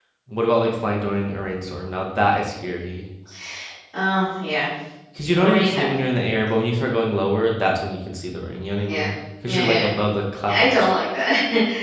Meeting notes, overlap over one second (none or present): none